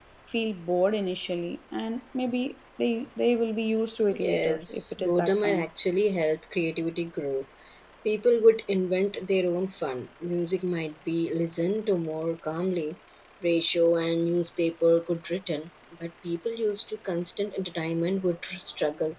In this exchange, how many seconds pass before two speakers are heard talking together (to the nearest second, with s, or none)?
4 s